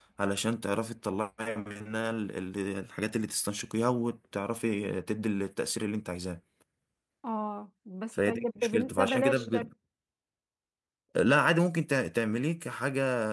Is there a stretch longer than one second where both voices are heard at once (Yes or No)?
Yes